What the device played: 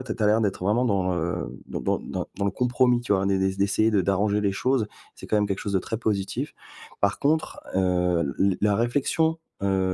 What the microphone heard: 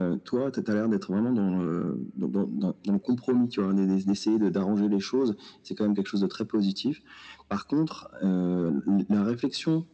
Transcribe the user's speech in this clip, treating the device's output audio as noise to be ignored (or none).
none